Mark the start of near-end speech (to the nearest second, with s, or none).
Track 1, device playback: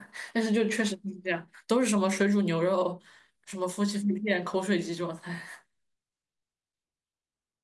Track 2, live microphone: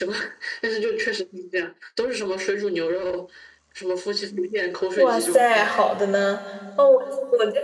5 s